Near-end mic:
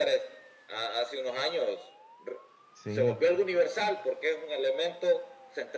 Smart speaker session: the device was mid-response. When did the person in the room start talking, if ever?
2.7 s

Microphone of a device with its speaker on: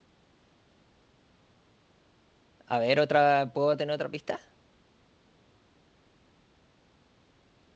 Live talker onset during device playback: 2.7 s

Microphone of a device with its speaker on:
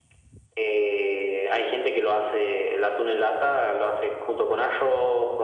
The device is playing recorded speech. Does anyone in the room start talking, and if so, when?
none

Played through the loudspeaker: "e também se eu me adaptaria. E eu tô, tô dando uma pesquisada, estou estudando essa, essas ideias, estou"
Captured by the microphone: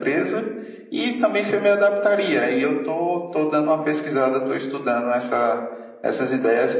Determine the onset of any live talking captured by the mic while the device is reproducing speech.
none

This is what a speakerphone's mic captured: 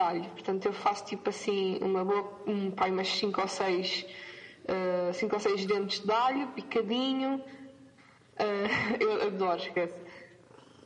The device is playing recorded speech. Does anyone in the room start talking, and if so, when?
none

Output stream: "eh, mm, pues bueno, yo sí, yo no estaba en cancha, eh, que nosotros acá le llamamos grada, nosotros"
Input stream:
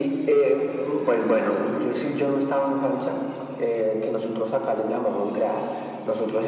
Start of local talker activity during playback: none

